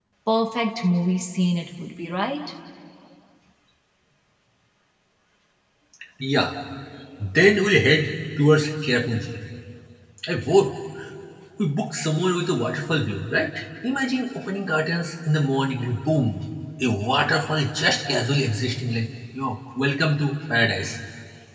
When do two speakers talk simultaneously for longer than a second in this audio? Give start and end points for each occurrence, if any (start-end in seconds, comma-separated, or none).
none